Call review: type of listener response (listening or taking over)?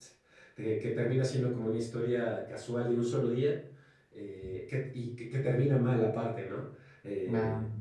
listening